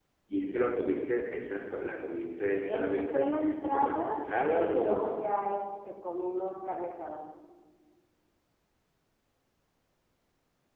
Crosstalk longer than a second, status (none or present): present